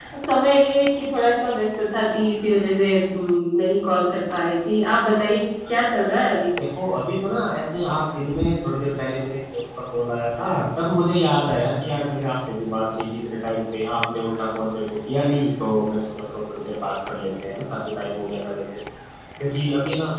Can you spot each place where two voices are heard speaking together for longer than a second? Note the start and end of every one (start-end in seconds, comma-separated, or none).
none